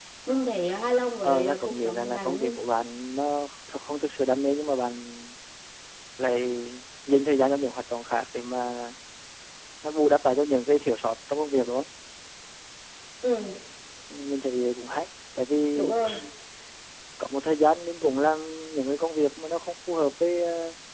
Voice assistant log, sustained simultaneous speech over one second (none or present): present